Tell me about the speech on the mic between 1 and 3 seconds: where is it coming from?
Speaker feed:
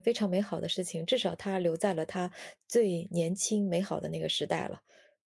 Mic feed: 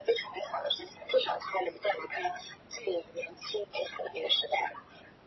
echo only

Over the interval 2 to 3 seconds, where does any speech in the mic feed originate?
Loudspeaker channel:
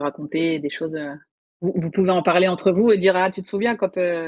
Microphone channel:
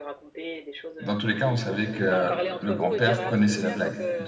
both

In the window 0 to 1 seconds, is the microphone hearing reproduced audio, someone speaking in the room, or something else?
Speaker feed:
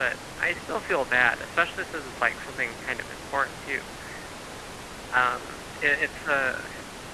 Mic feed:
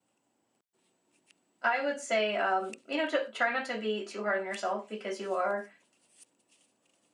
neither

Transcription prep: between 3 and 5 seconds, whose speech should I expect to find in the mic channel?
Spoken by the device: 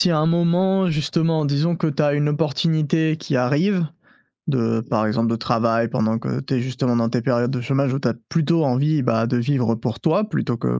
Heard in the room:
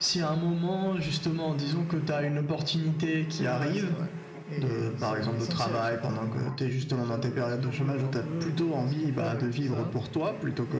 both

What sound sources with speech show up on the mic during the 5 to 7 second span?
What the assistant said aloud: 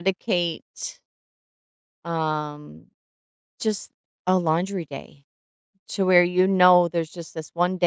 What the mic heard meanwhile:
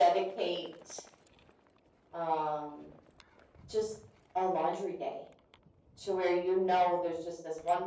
echo only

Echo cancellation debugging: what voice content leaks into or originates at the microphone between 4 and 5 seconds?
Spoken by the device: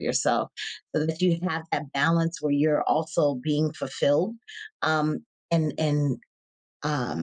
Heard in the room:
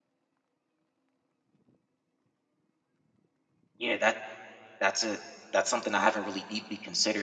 user only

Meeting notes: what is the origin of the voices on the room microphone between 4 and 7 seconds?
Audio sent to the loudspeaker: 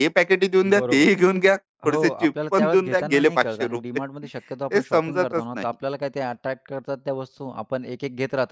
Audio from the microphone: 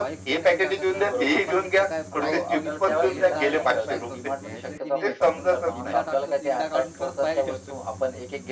both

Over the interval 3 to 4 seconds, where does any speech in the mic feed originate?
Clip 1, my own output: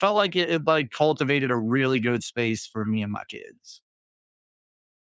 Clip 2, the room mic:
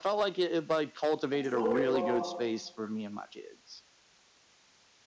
echo only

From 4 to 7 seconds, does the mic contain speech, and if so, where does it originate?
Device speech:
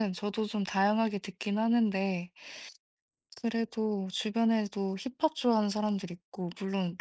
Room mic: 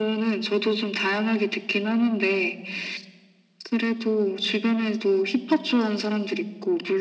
echo only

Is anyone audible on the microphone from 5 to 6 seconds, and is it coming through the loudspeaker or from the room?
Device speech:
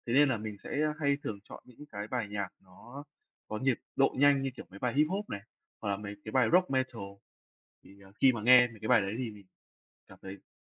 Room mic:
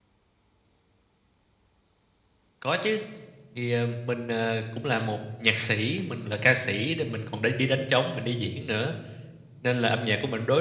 user only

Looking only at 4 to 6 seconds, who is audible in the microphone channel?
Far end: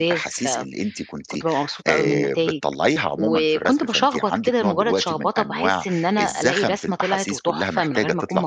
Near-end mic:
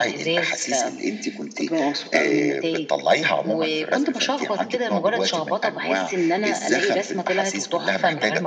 echo only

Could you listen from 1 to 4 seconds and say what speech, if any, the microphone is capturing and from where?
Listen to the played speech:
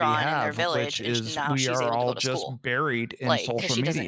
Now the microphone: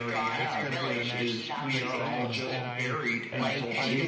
both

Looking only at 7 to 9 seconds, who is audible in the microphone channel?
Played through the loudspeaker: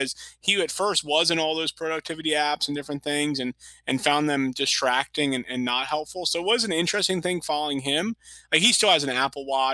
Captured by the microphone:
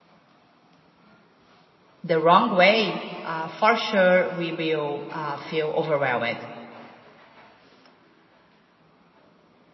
neither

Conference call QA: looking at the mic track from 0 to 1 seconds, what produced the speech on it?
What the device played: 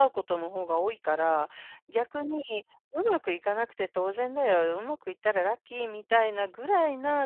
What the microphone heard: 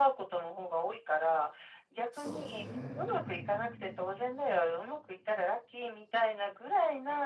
echo only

